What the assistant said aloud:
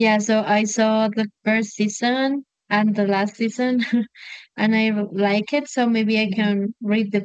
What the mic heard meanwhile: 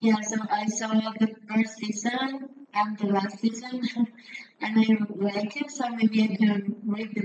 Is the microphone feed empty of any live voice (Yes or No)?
Yes